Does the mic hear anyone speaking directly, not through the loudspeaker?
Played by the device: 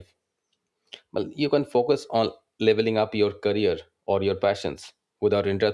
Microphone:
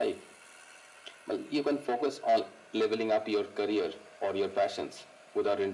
No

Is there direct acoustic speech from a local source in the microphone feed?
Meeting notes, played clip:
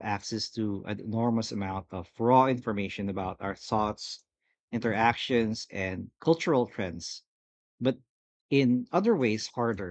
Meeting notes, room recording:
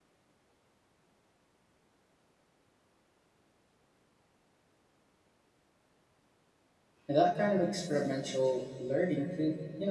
Yes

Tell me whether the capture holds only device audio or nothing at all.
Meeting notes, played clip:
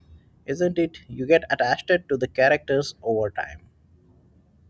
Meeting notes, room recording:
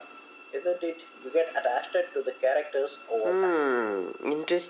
No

